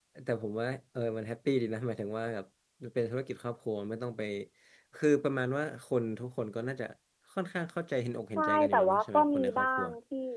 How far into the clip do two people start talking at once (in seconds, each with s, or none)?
8.4 s